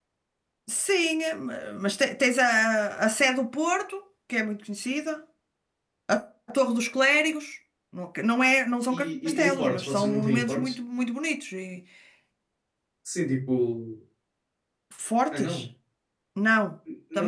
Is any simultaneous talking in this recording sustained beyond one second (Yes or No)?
Yes